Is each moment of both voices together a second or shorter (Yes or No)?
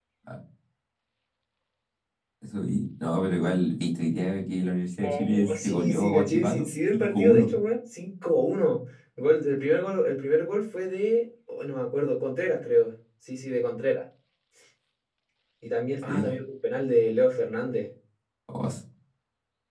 No